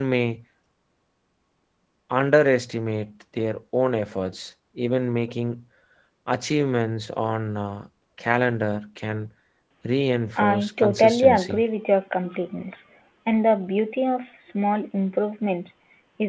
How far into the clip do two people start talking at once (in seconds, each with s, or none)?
10.4 s